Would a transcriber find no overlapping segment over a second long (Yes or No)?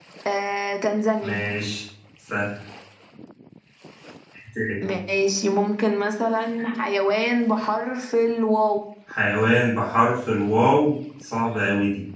Yes